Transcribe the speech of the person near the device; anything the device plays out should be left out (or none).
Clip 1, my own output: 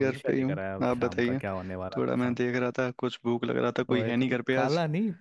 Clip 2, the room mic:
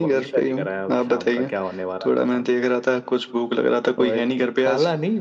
none